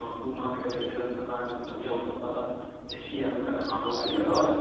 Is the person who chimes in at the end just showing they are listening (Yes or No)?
Yes